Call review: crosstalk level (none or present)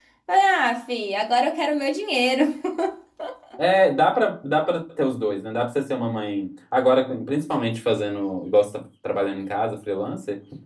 none